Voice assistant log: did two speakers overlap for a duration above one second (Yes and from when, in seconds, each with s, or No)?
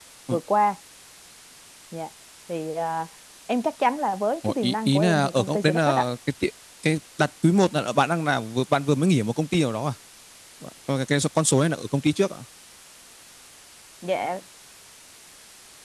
Yes, from 4.4 s